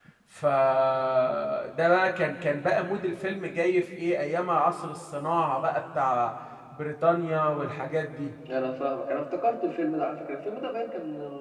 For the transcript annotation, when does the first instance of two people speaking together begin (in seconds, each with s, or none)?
none